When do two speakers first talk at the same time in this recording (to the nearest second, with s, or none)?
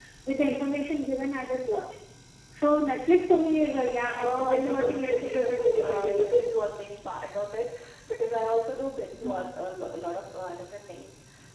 4 s